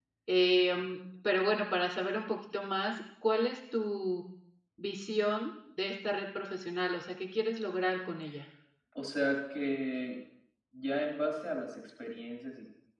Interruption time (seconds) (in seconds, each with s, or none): none